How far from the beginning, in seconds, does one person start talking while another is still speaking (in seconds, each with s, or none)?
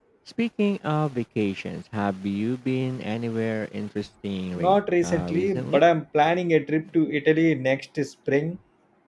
4.5 s